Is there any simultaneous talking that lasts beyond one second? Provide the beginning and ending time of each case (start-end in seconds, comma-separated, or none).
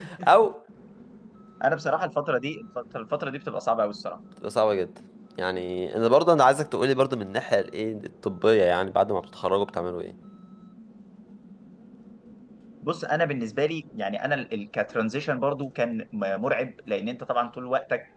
none